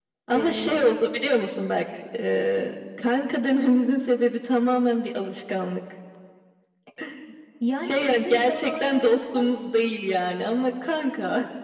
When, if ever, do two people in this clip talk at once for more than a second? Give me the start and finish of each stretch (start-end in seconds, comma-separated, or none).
7.8-9.4